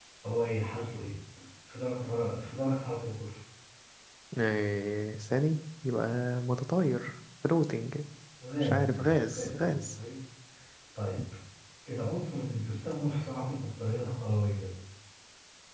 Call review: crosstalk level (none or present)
present